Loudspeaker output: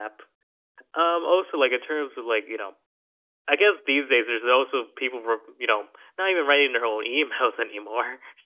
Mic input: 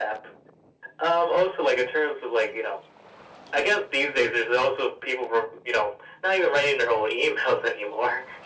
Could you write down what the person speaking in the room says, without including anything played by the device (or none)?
none